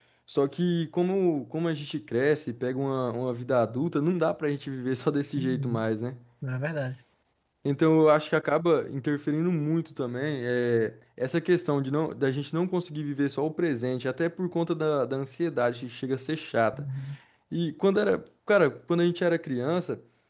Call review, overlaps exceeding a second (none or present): none